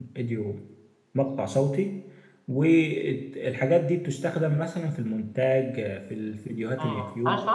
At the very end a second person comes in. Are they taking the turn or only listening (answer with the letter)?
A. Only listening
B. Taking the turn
B